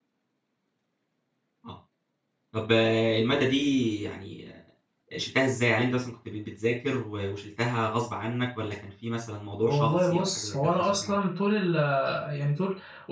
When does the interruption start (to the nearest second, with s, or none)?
10 s